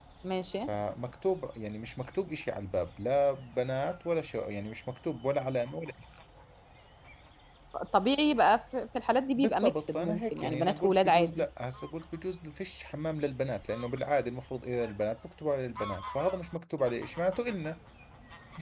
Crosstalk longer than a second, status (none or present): present